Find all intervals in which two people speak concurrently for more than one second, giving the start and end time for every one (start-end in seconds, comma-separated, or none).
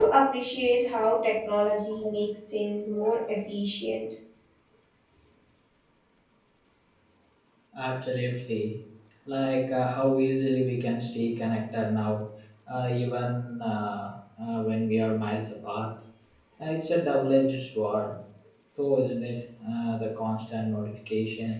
none